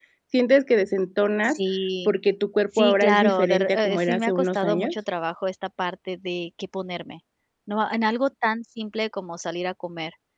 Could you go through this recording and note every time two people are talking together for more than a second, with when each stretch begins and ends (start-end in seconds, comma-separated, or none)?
2.8-4.9